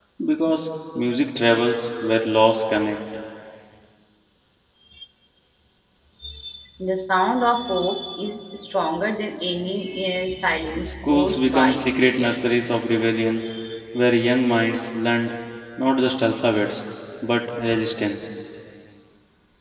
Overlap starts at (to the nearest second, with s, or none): 11 s